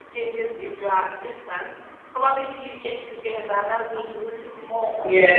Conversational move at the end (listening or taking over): listening